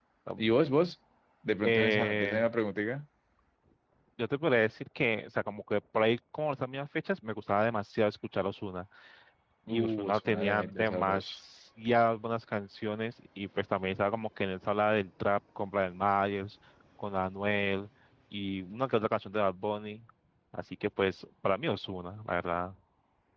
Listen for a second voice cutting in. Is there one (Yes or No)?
Yes